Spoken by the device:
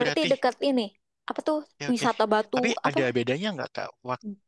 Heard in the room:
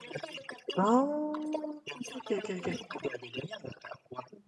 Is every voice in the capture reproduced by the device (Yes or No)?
No